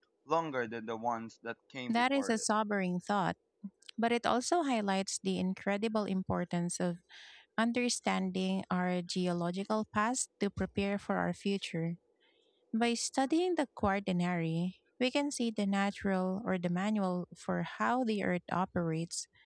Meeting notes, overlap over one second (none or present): none